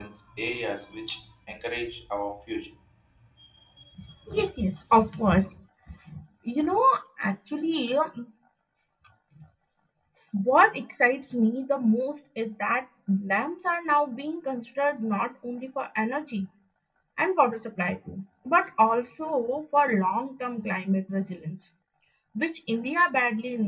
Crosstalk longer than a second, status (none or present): none